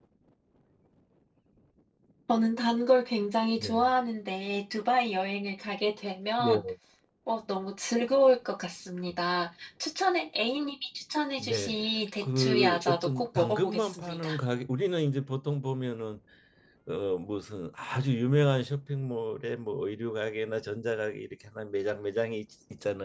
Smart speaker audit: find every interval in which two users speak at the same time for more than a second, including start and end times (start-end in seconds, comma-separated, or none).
12.2-14.4